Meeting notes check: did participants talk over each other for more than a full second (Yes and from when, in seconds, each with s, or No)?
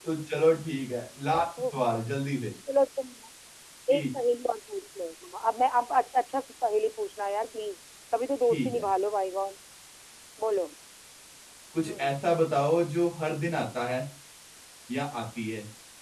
No